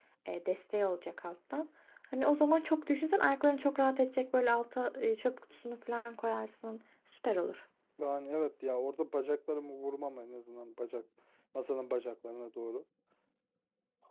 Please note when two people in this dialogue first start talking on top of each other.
none

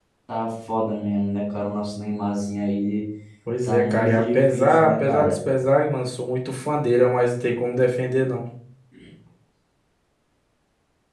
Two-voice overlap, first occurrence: 4 s

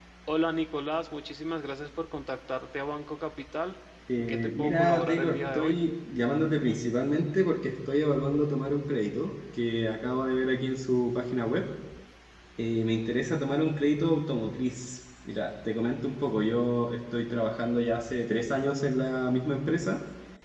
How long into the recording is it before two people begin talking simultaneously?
4 s

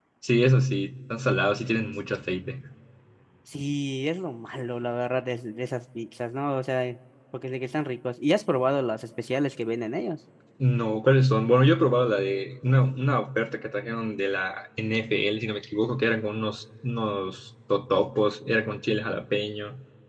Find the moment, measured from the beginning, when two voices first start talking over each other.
none

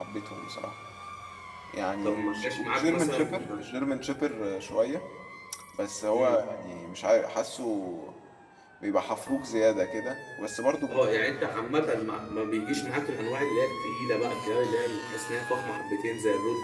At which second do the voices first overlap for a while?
2 s

